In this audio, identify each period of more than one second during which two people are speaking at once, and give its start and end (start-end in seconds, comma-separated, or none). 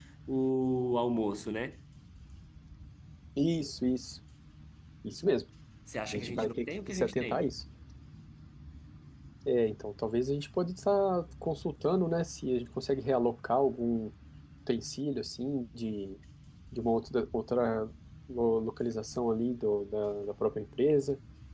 6.1-7.5